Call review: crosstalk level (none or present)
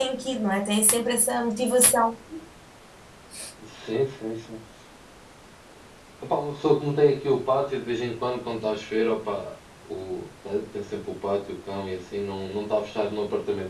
none